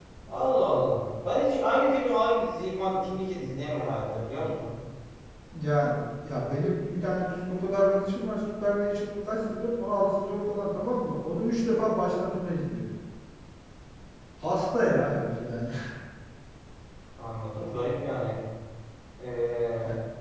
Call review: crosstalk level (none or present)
none